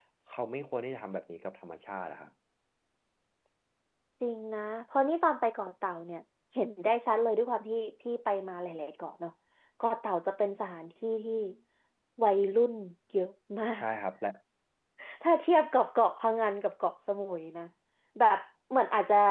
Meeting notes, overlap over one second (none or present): none